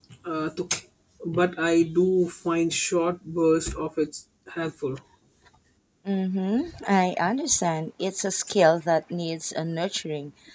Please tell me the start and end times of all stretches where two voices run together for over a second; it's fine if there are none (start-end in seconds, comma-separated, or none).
none